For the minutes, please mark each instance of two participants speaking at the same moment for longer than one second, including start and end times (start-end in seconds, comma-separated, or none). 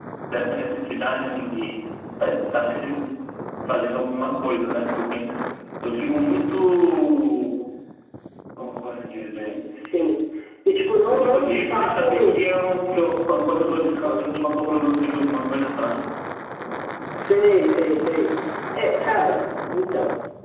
11.1-12.4